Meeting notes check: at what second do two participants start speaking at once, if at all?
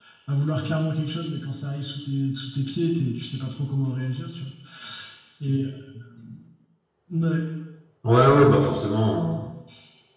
none

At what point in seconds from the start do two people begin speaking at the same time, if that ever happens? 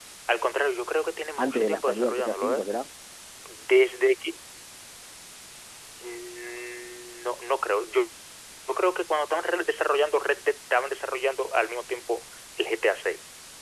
1.4 s

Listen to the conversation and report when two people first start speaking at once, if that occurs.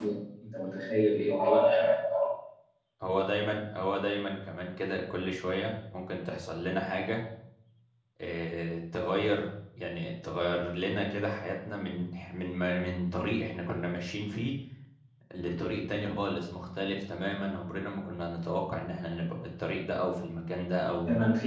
none

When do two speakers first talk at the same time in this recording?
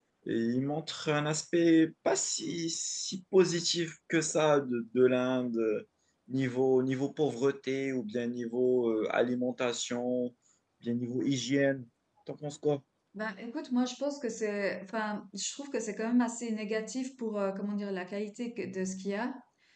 none

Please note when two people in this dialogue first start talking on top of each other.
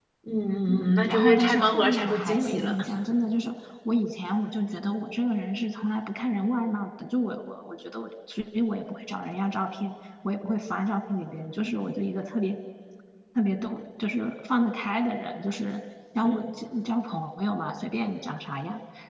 0.7 s

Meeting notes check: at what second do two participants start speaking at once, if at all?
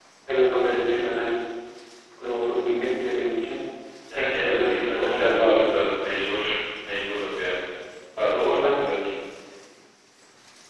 4.2 s

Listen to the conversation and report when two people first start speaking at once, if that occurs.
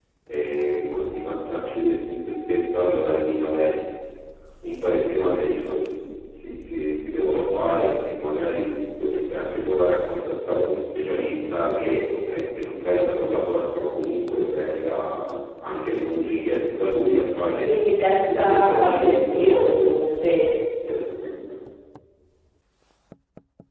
18.2 s

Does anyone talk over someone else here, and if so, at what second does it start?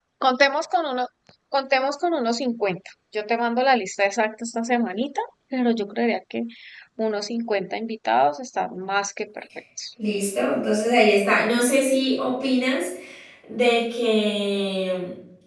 none

